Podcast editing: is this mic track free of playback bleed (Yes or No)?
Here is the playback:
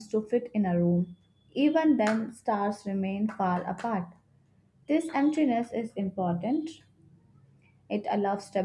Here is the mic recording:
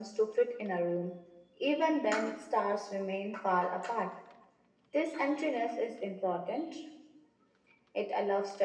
No